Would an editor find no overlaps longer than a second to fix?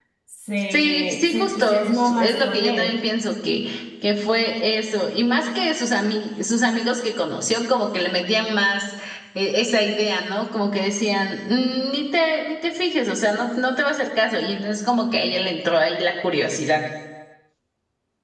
No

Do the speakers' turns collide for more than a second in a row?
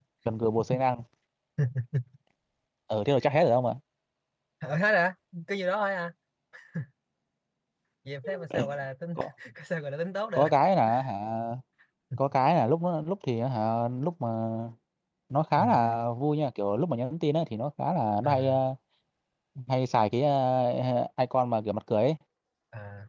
No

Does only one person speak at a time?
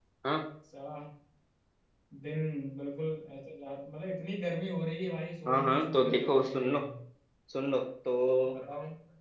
No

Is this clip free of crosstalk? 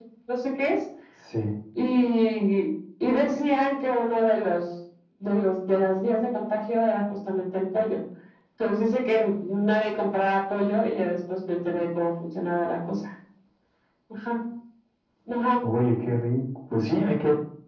Yes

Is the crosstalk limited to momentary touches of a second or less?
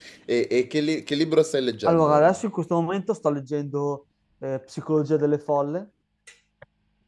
Yes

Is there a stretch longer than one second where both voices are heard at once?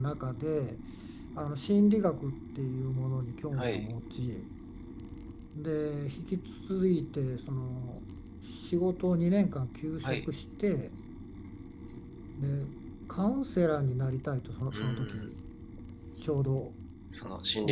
No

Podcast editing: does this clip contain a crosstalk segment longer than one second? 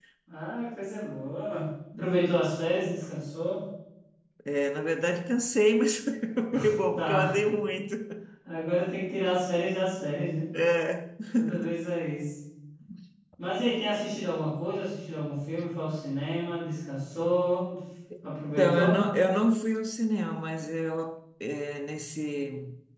No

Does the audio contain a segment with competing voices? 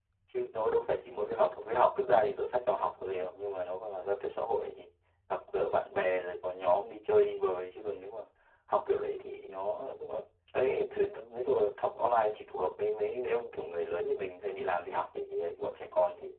No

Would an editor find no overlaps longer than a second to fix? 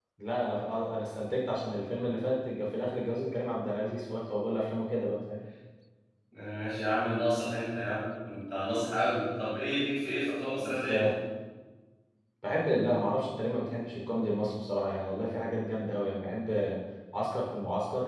Yes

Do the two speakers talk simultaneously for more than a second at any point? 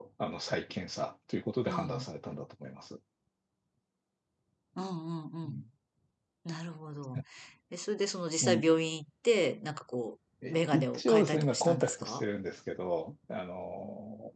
Yes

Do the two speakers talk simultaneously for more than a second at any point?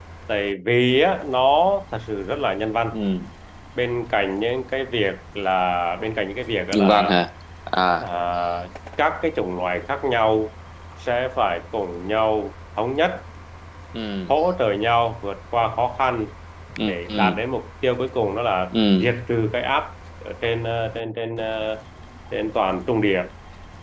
No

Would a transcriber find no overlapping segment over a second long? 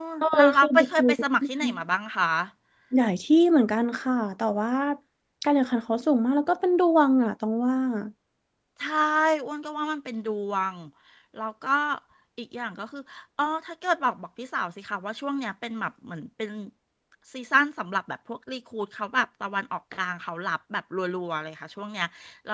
No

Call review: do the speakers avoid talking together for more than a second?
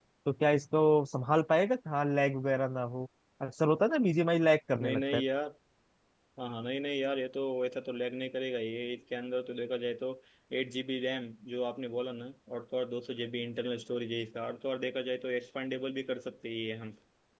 Yes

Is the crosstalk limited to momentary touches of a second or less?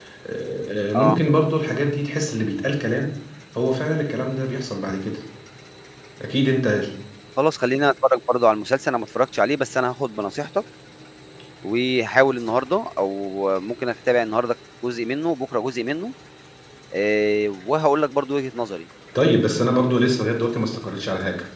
Yes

